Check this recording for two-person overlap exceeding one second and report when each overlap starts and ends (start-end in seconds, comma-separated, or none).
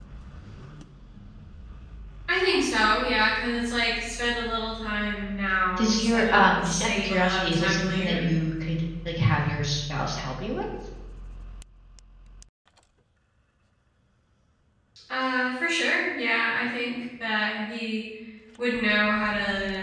5.8-8.2